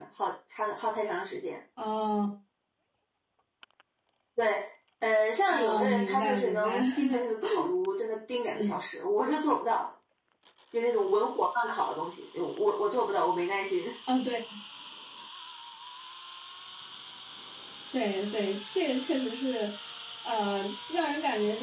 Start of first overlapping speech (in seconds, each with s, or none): 5.5 s